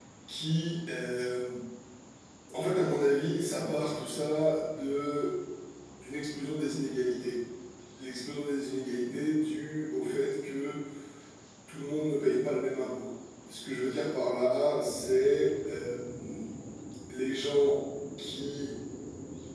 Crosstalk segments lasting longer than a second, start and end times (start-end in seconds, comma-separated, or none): none